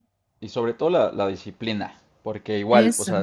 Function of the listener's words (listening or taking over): listening